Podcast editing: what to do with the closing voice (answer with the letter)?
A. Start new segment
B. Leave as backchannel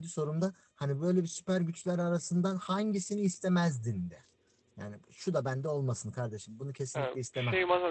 A